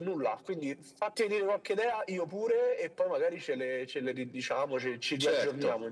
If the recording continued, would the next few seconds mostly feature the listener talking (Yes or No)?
Yes